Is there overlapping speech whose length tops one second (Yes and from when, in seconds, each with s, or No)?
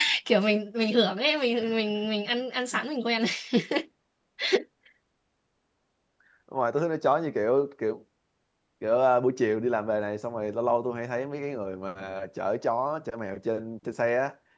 No